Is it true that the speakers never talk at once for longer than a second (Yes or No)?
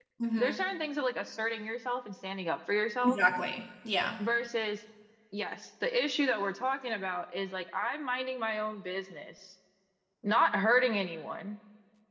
Yes